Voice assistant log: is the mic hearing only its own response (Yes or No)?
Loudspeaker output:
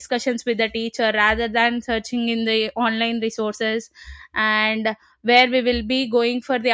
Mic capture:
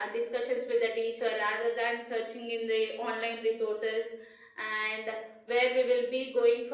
Yes